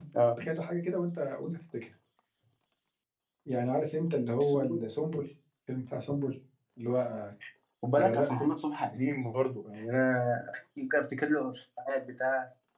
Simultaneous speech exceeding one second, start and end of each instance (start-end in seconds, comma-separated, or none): none